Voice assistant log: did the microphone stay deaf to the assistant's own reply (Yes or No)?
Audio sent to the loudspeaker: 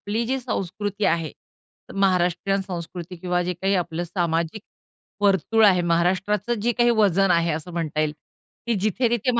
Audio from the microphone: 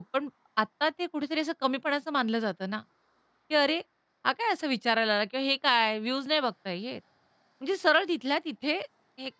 Yes